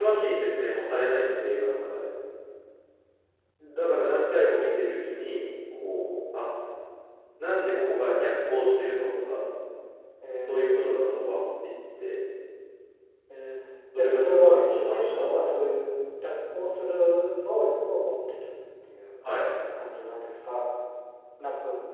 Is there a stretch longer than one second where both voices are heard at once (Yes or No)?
Yes